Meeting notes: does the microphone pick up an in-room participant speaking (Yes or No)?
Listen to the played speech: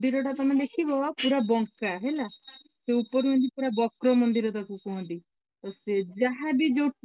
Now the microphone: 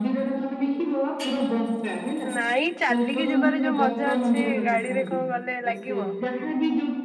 Yes